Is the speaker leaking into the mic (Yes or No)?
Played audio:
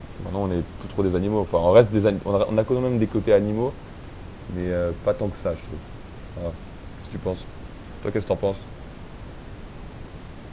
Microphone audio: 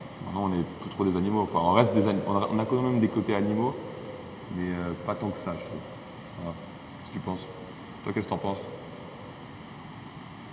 Yes